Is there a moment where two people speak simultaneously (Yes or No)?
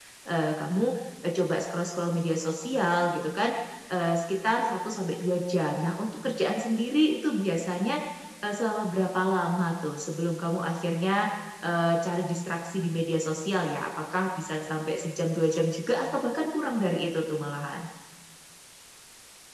No